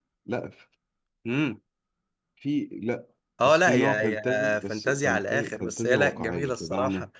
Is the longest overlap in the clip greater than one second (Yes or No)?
Yes